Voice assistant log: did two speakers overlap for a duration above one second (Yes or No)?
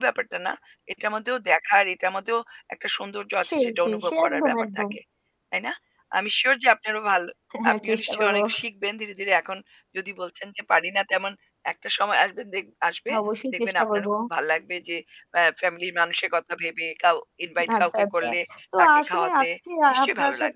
Yes